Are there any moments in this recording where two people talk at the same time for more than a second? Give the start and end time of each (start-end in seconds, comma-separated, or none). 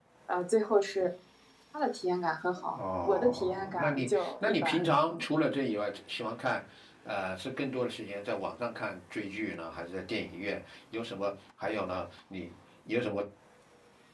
2.7-4.8